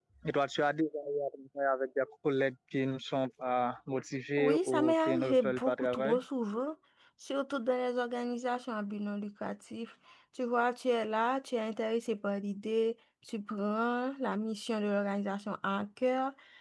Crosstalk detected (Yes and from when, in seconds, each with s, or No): Yes, from 4.4 s